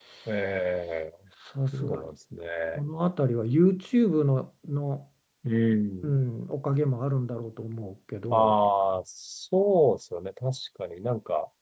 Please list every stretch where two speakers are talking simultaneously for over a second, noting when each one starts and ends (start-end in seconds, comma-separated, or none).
none